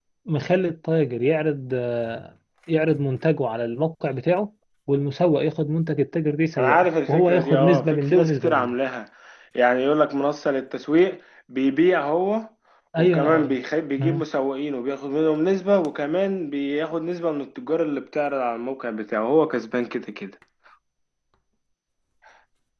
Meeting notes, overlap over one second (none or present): present